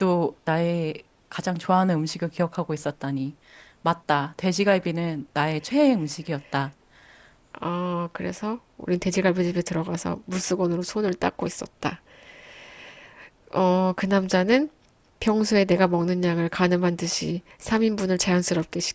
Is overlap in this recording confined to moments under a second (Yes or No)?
Yes